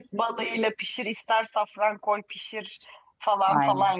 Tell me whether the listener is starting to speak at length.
No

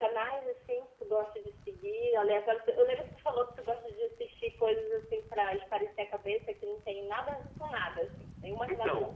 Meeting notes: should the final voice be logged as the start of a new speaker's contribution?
Yes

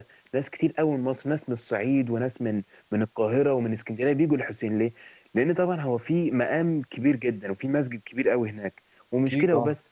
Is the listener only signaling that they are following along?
Yes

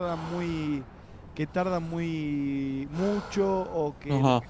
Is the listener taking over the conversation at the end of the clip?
Yes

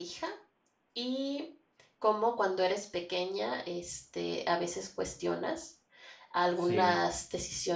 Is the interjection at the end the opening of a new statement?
No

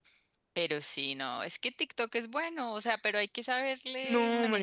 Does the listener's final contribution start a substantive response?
Yes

